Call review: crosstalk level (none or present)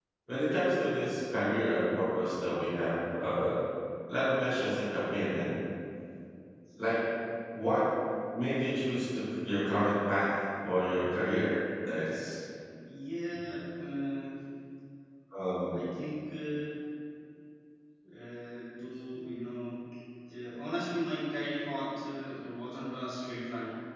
none